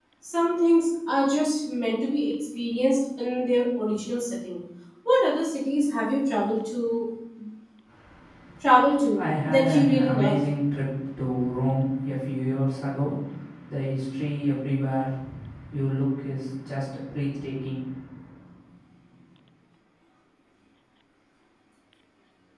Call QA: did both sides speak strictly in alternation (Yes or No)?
No